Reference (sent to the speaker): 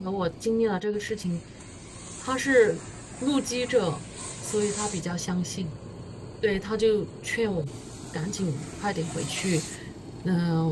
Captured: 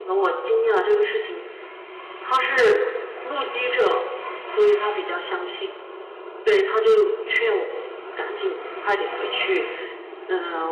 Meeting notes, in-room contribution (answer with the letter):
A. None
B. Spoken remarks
A